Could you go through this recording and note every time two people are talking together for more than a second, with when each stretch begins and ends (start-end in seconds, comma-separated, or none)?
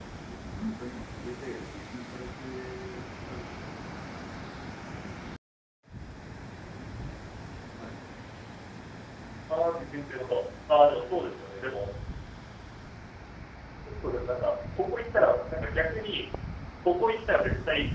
none